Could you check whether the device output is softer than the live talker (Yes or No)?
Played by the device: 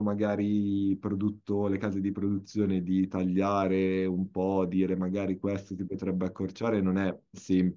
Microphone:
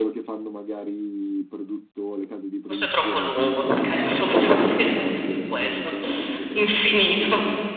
Yes